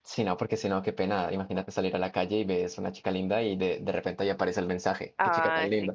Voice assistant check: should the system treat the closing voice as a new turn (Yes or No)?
Yes